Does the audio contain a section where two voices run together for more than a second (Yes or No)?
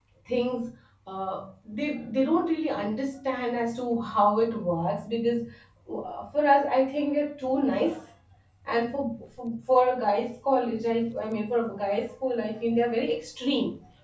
No